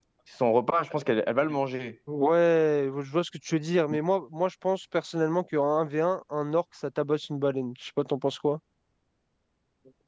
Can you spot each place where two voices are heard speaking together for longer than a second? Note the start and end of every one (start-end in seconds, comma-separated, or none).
none